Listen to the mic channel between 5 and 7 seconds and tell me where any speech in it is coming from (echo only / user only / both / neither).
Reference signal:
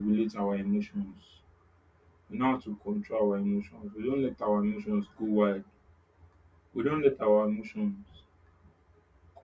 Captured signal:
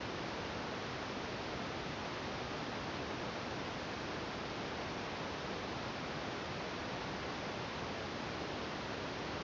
neither